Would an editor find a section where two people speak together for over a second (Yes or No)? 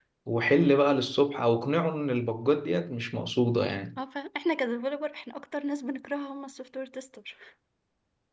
No